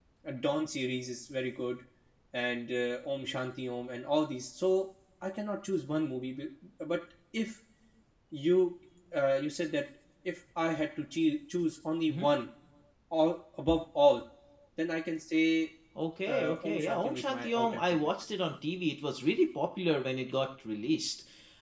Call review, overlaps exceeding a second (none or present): present